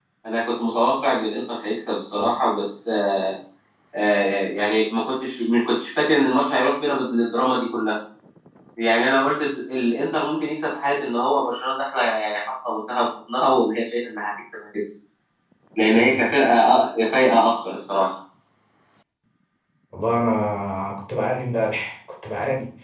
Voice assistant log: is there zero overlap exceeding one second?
Yes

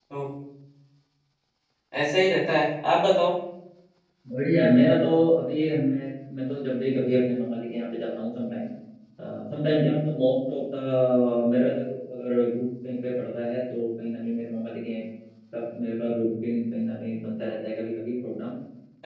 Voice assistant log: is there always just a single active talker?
Yes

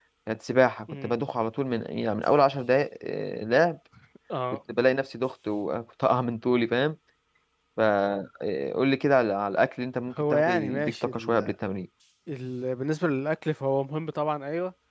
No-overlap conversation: No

